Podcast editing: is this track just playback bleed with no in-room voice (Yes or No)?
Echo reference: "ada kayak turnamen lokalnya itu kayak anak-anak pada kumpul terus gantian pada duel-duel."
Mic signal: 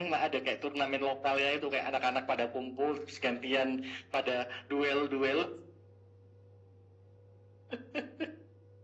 Yes